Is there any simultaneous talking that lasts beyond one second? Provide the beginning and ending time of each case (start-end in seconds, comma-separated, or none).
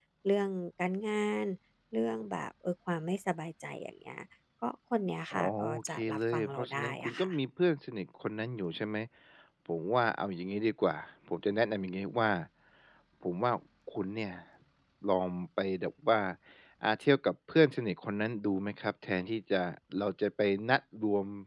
5.3-7.3